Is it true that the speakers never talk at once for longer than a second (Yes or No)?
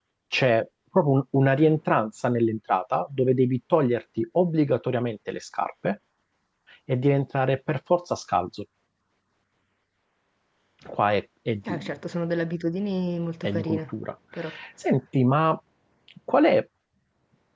Yes